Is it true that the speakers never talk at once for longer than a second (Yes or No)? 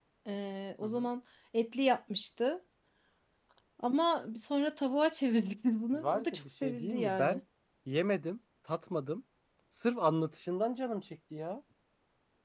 No